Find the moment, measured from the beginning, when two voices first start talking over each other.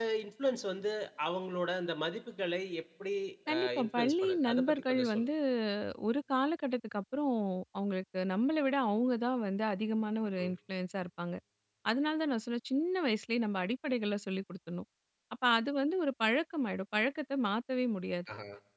3.5 s

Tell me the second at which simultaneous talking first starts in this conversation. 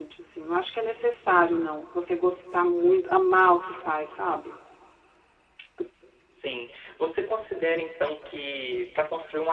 none

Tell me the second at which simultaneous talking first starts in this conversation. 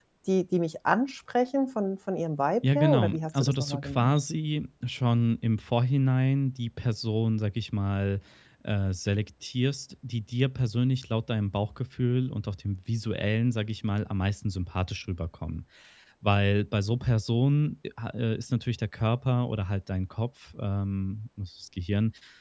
2.6 s

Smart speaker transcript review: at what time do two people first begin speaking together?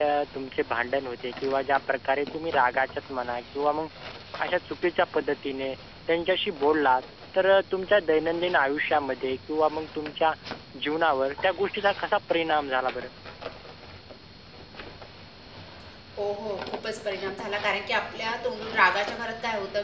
none

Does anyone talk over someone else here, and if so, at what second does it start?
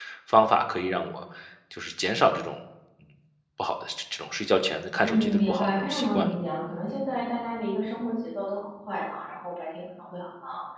5.0 s

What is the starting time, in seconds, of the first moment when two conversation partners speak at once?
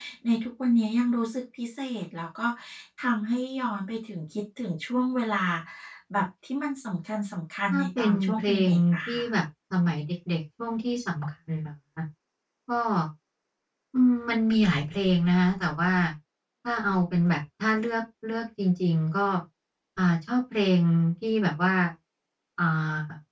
7.7 s

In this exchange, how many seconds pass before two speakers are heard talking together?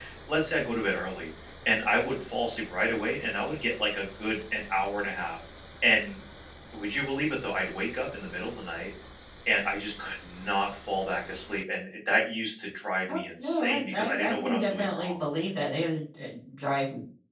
13.1 s

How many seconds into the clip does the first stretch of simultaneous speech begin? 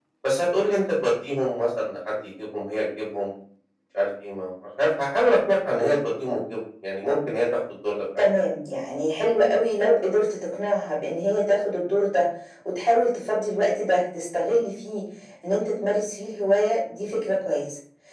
none

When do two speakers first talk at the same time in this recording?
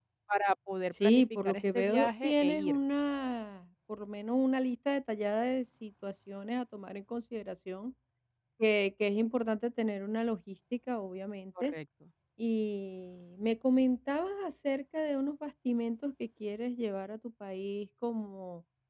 0.9 s

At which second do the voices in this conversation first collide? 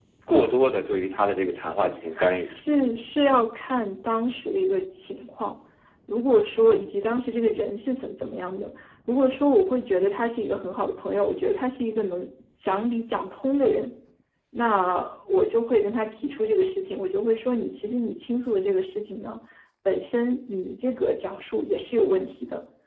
none

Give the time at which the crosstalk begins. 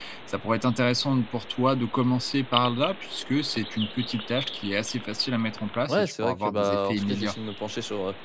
5.9 s

